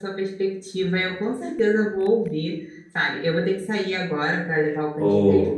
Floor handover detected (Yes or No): No